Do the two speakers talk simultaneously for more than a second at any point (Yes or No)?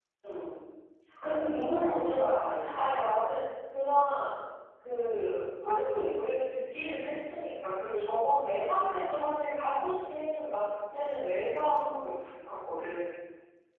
No